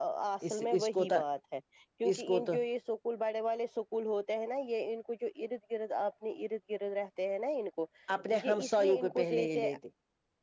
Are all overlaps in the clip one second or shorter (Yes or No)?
No